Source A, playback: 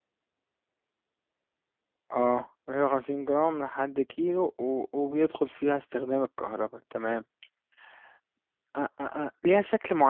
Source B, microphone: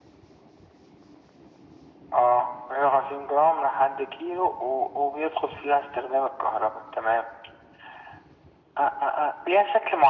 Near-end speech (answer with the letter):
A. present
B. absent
B